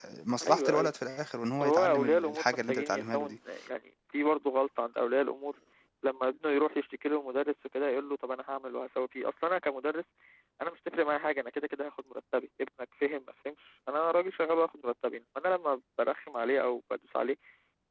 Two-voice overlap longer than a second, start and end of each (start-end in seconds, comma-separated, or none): 1.6-3.3